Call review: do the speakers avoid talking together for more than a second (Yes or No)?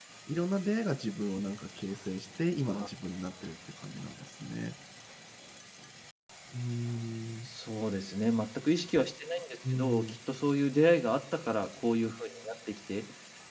Yes